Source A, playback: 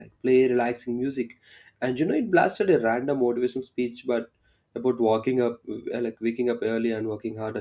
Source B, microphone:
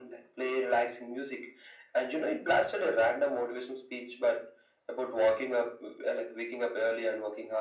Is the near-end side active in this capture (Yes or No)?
No